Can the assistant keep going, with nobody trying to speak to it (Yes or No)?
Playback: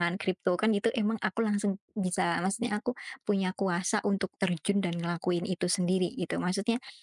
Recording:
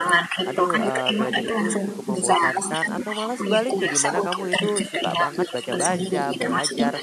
No